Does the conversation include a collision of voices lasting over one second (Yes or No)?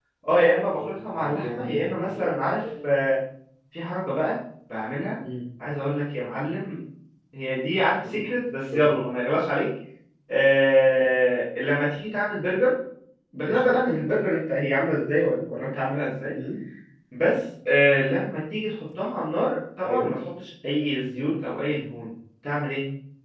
Yes